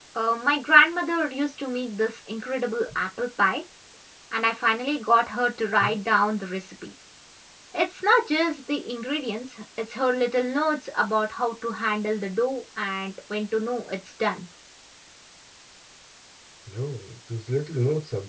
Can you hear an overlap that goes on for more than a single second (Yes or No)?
No